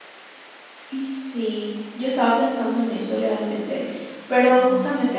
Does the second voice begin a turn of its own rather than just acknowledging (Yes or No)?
No